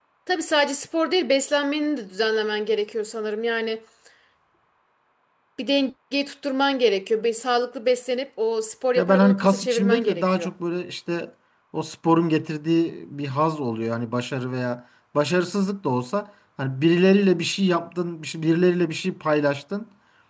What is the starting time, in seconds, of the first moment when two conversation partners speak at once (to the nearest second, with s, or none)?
9 s